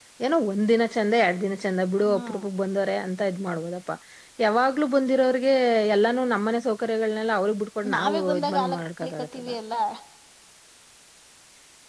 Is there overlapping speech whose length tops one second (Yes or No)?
Yes